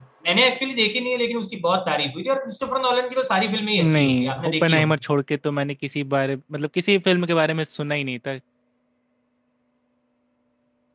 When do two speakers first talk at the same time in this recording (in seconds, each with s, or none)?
3.8 s